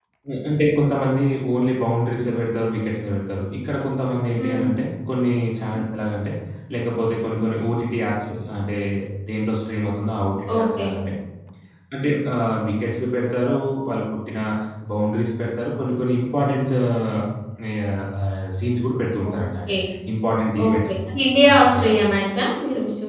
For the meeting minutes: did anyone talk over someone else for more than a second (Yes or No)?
No